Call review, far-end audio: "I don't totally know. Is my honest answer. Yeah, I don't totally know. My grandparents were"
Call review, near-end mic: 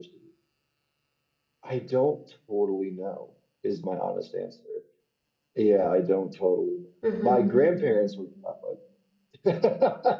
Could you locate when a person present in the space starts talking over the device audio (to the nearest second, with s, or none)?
7 s